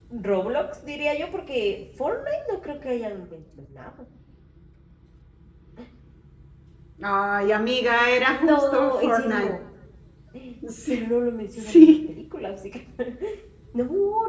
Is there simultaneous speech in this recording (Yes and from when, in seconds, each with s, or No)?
Yes, from 8.3 s